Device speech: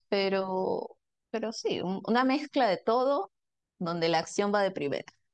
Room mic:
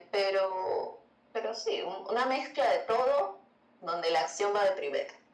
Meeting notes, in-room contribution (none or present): none